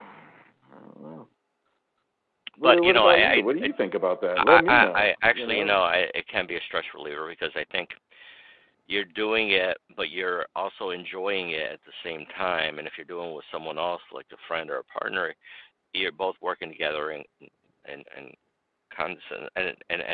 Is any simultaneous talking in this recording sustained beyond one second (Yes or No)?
Yes